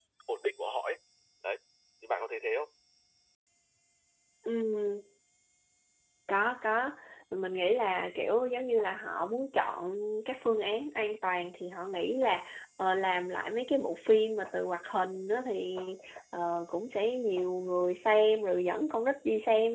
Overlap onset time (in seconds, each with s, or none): none